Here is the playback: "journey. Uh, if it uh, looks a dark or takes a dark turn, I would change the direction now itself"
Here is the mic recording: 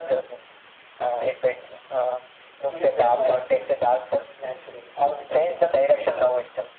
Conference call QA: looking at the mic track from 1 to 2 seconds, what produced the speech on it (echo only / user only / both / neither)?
echo only